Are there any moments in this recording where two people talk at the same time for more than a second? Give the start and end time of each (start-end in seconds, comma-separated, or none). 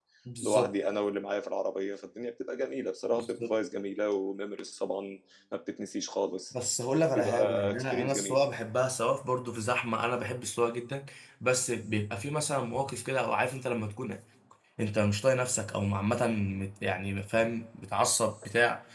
7.1-8.4